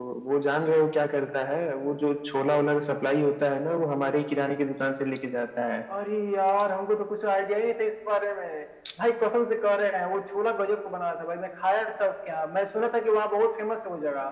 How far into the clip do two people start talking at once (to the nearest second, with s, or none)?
none